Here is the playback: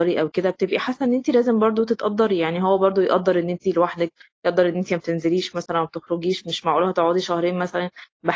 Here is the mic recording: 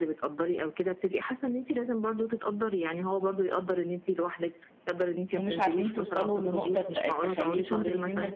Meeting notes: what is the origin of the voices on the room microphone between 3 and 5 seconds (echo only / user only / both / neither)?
echo only